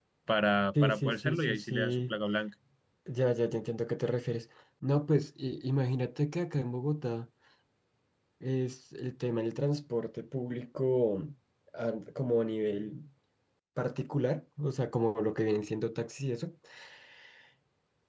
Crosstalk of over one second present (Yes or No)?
Yes